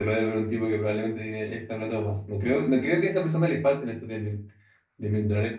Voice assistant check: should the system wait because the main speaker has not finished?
Yes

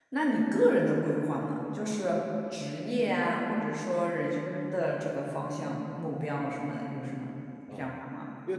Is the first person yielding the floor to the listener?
Yes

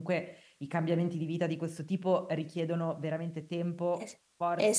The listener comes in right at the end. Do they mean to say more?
Yes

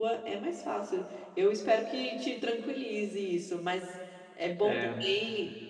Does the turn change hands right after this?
No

